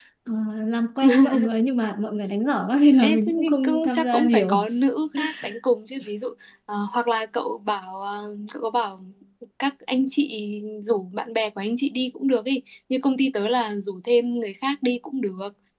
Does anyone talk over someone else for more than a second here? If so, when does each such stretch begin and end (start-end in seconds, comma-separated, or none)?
3.0-4.6